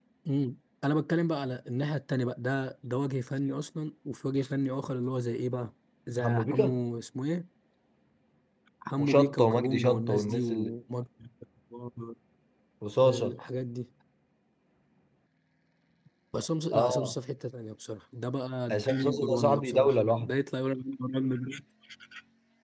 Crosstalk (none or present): present